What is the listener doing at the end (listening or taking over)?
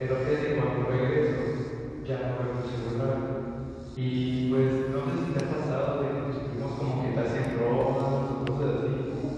taking over